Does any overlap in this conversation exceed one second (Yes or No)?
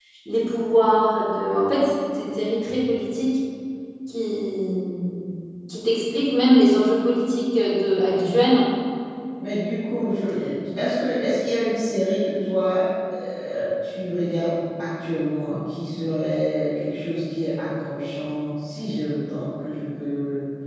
No